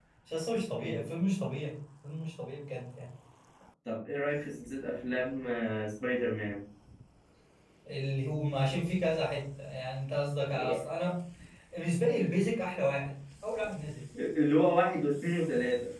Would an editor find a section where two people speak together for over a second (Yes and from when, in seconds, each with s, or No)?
No